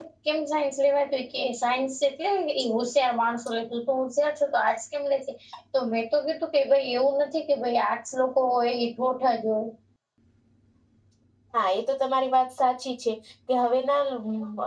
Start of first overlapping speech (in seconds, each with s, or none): none